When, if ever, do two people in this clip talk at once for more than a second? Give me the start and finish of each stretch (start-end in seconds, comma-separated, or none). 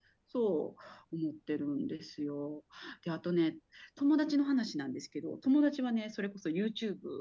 none